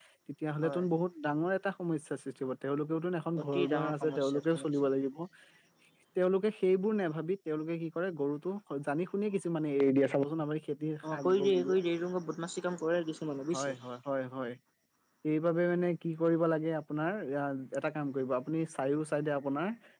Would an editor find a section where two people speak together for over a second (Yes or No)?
Yes